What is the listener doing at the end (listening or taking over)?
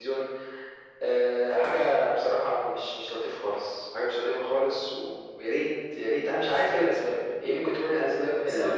taking over